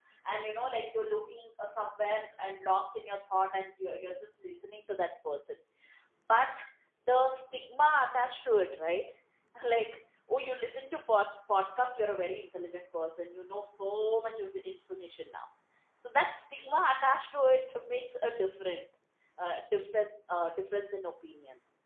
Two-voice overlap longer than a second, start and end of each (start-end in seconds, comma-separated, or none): none